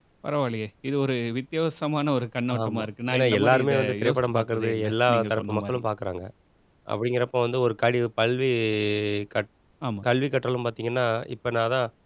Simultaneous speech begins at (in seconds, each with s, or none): 2.5 s